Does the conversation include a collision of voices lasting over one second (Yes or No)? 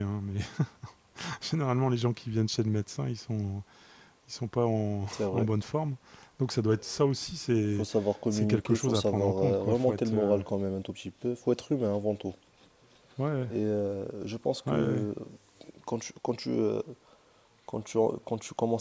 Yes